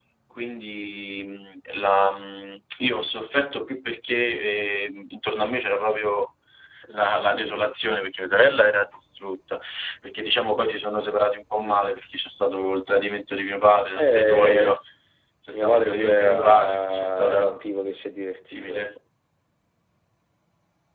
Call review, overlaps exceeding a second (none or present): present